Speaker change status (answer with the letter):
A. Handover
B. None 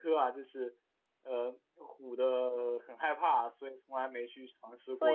A